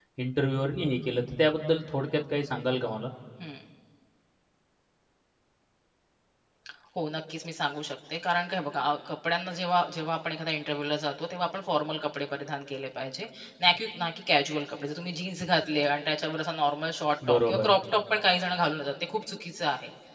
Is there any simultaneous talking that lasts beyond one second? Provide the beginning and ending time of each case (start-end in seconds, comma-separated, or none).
none